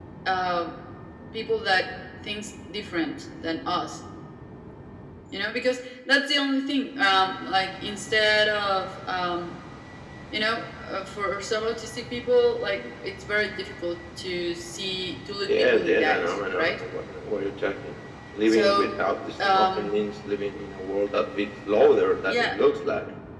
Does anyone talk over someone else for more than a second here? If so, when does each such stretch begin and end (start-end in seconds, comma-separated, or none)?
15.4-16.8